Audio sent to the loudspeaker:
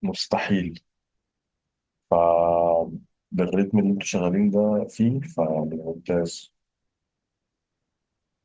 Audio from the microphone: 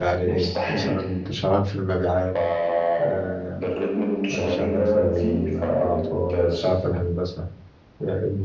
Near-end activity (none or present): present